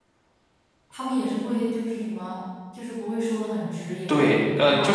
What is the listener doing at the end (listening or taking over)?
taking over